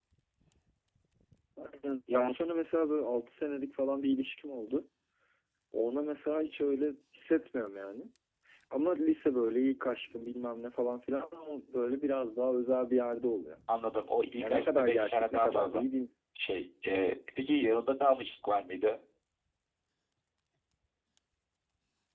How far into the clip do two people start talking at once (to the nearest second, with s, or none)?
14 s